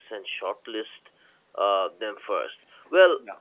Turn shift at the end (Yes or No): No